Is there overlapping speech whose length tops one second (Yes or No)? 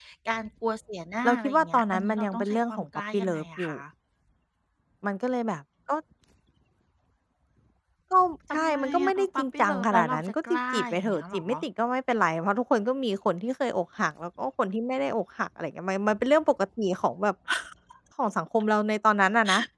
Yes